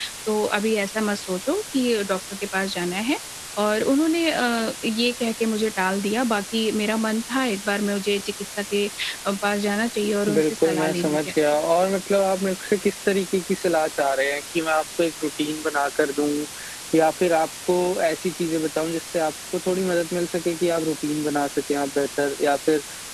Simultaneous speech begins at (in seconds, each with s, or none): 10.3 s